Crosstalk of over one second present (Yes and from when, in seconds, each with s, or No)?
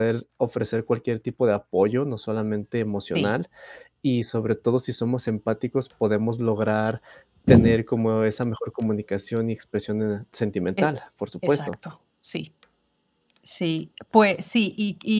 No